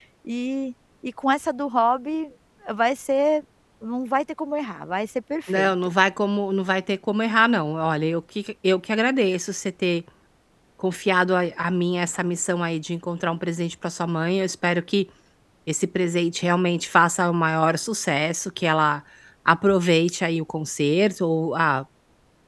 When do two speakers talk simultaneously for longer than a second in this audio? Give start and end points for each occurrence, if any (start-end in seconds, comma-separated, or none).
none